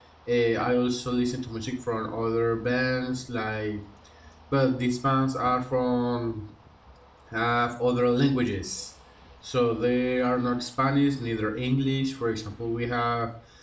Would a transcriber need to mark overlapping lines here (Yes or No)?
No